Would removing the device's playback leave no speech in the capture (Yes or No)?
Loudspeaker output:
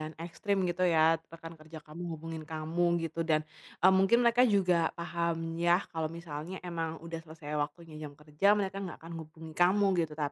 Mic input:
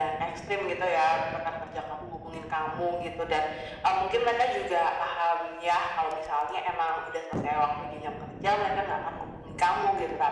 Yes